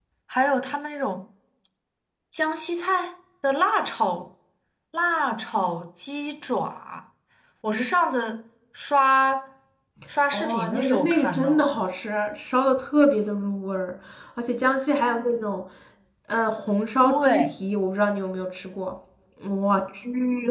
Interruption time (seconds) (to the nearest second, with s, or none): 10 s